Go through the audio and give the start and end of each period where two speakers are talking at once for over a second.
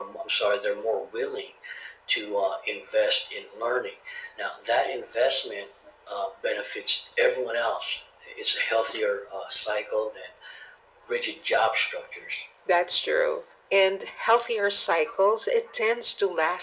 none

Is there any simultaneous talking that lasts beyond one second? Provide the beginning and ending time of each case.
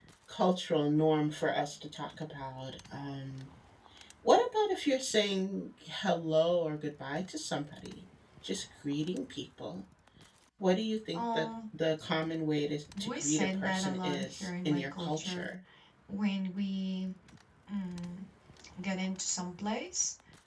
13.0-15.5

